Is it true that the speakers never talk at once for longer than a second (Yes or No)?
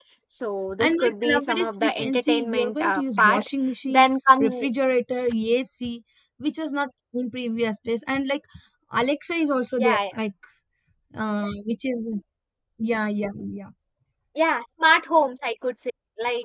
No